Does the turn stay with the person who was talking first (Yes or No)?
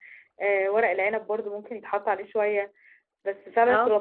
Yes